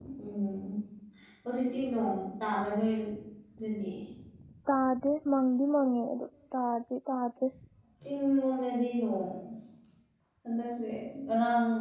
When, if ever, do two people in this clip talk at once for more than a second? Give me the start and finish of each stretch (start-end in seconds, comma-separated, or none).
none